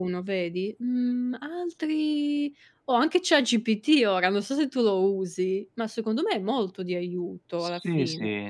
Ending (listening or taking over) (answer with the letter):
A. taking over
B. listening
A